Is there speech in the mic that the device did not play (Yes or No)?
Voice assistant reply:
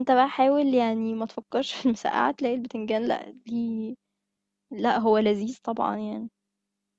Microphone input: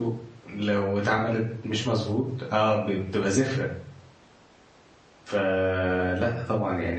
Yes